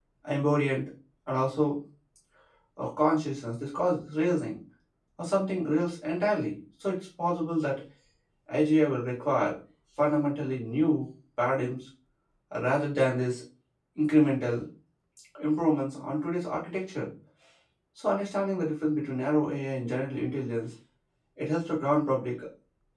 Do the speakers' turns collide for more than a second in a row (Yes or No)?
No